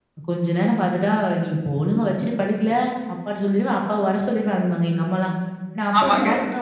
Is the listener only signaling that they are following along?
Yes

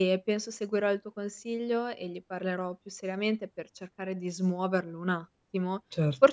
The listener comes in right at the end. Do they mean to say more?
No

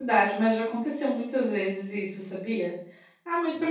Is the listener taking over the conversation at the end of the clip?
No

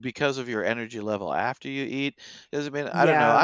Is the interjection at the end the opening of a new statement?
No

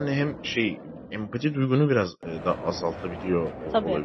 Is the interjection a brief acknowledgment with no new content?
Yes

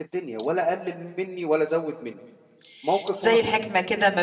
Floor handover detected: Yes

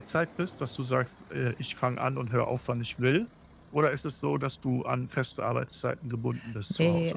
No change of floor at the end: No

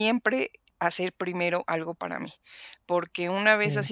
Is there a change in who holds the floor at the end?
No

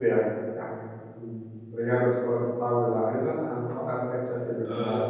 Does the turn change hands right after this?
Yes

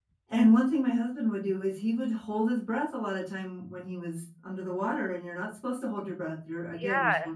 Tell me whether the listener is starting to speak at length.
Yes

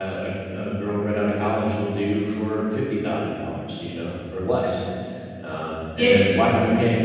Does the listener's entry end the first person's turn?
No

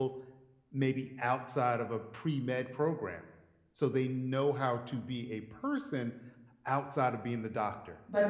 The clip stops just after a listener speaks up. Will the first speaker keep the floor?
No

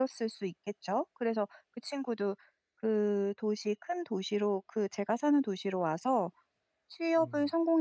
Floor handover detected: No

